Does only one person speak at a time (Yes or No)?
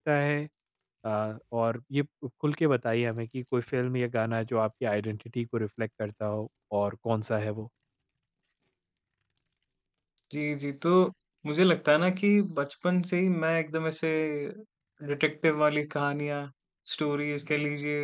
Yes